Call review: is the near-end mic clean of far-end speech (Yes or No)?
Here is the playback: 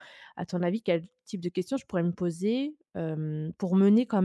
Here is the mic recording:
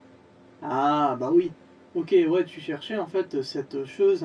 Yes